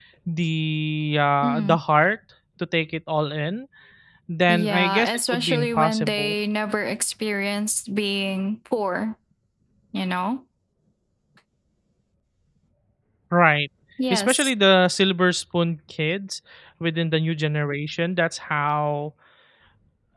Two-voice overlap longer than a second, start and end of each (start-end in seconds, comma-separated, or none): 4.5-6.3